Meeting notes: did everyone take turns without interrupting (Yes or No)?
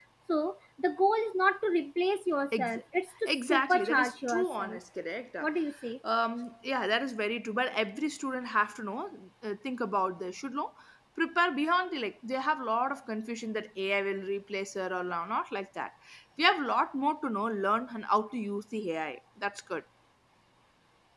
No